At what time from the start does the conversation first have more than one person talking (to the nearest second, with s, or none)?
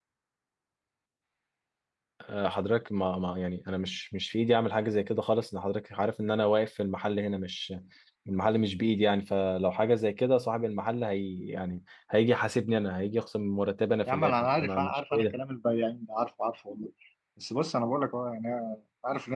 14 s